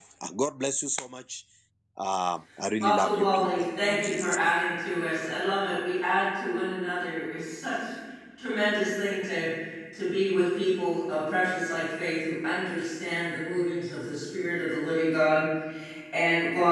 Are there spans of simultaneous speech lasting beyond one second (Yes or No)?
Yes